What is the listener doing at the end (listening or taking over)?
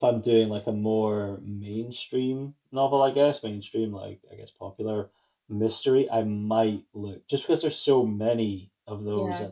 listening